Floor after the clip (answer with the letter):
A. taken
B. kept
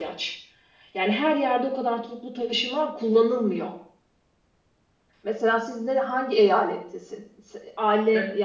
B